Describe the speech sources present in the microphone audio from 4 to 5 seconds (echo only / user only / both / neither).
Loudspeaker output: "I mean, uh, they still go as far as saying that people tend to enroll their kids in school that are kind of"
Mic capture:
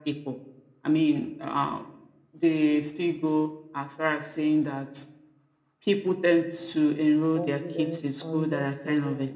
echo only